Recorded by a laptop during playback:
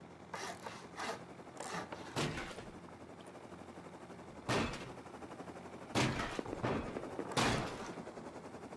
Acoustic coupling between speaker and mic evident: No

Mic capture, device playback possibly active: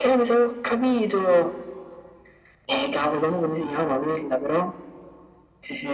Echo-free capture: No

